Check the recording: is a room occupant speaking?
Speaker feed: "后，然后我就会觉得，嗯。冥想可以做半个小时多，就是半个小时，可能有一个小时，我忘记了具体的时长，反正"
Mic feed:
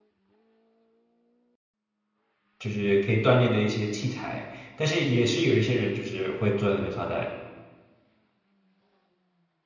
Yes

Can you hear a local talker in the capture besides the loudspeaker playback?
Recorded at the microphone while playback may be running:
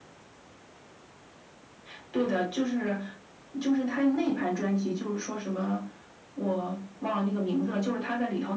No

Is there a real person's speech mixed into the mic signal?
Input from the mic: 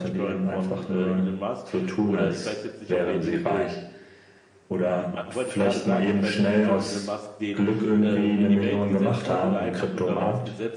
Yes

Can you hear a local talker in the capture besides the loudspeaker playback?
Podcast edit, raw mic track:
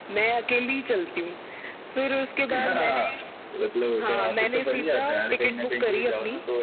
No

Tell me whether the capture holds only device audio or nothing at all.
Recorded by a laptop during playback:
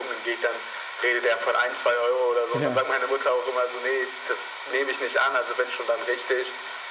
No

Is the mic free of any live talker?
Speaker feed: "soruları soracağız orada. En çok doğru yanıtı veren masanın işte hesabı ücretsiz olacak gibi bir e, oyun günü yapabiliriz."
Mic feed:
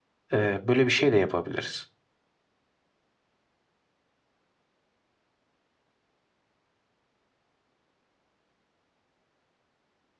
No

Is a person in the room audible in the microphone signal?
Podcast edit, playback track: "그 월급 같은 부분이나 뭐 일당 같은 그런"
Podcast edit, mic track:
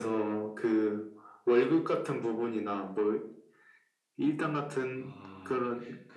Yes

